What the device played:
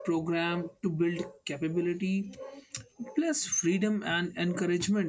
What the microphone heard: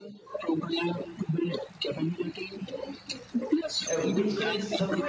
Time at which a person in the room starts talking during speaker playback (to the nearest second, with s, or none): 4 s